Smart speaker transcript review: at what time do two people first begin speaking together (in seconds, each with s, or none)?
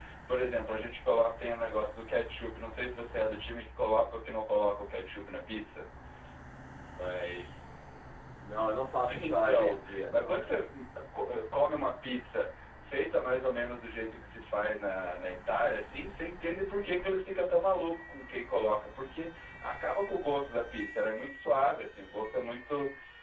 9.2 s